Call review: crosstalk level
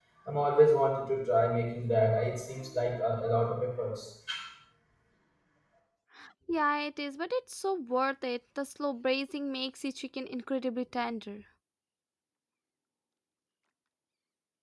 none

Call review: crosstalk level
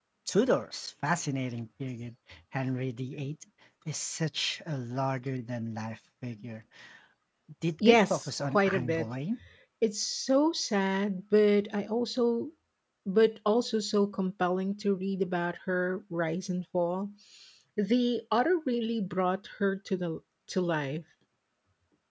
present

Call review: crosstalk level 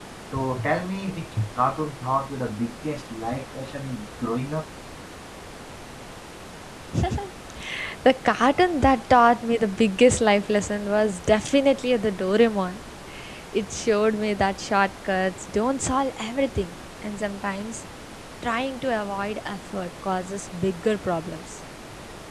none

